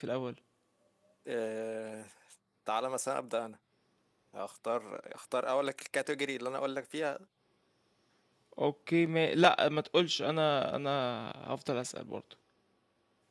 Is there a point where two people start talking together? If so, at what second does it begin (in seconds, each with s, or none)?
none